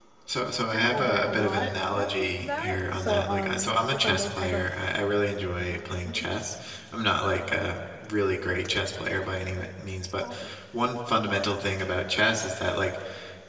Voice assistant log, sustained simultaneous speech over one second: present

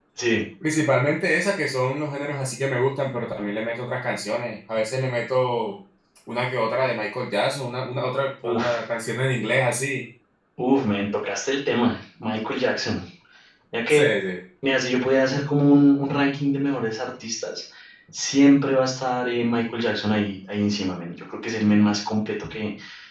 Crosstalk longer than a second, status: none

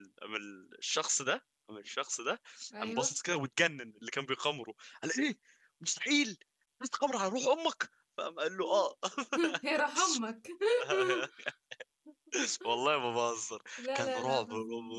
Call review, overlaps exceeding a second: present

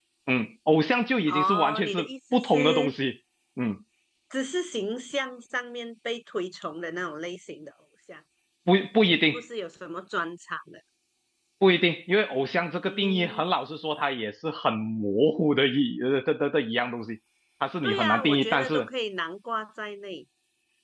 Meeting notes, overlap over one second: present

